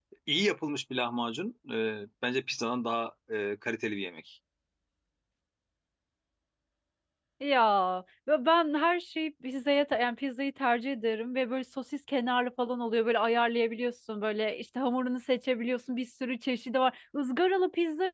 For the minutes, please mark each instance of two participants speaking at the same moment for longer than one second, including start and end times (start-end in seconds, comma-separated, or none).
none